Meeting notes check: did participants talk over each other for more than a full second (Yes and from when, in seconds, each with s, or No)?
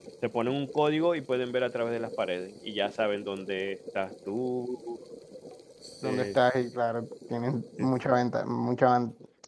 No